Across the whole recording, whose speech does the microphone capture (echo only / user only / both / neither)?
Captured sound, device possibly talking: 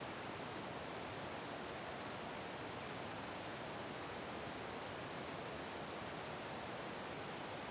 neither